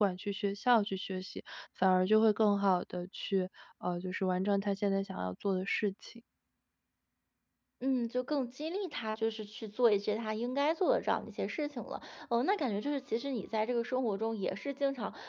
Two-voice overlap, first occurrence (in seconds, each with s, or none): none